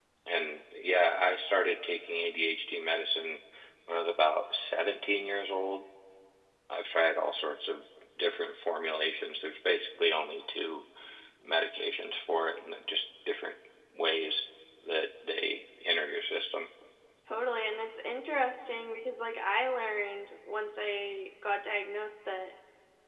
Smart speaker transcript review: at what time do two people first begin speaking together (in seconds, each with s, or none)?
none